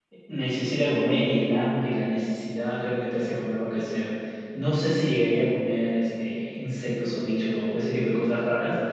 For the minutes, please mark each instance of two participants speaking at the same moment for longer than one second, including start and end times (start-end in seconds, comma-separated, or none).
none